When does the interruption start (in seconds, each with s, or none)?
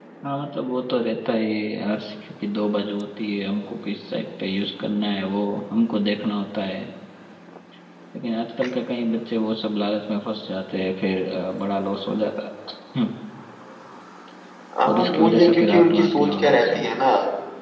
14.9 s